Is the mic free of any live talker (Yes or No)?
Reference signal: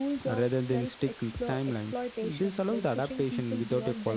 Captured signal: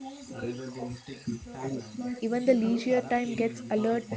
No